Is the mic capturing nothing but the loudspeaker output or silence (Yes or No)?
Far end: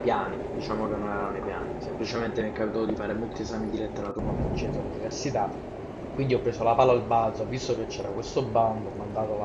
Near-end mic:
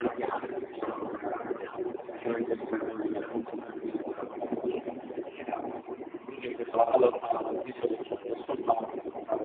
Yes